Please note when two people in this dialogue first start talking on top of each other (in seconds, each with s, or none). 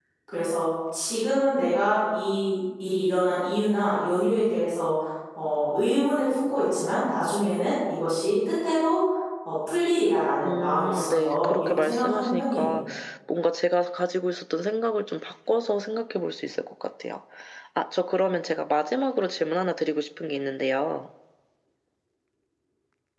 10.4 s